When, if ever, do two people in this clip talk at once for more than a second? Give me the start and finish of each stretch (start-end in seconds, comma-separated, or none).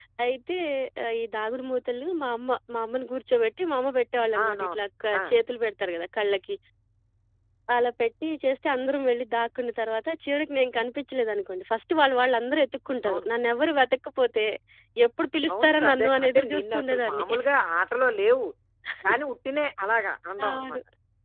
15.5-17.2